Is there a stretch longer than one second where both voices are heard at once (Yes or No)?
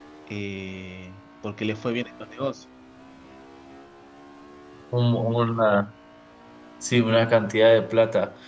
No